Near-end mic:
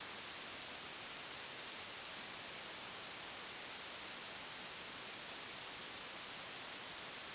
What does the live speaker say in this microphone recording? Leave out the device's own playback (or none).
none